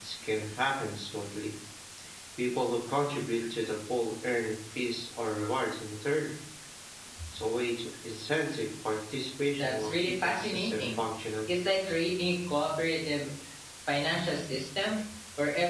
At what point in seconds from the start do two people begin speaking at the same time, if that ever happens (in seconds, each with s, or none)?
9.5 s